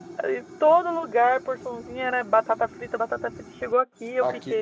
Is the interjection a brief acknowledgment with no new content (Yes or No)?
No